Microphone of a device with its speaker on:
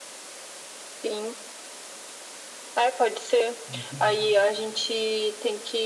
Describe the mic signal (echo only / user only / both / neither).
both